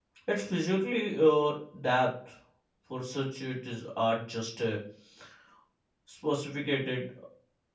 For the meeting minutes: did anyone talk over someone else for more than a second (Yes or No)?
No